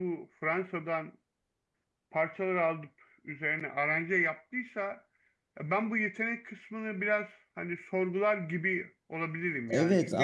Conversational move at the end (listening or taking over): taking over